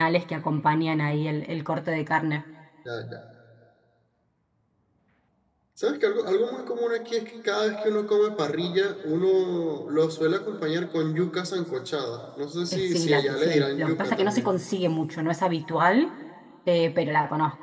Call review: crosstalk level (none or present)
present